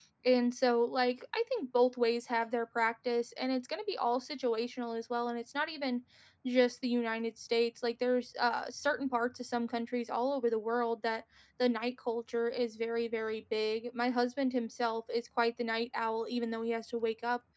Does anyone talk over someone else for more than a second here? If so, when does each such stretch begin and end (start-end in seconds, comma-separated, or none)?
none